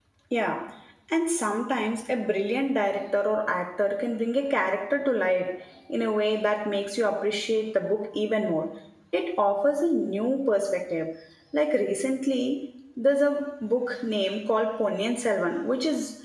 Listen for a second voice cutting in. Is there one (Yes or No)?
No